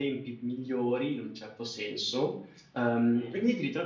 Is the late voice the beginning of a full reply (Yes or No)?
No